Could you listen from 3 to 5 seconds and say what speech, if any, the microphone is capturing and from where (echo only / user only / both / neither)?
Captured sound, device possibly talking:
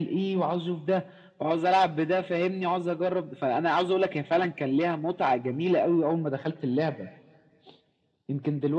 echo only